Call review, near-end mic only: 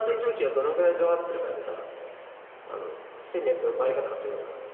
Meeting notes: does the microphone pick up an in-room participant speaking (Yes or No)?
No